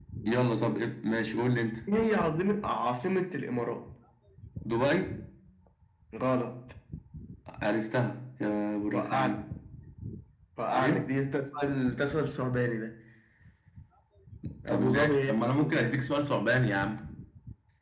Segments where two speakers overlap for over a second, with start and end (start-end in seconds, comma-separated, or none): 14.7-16.0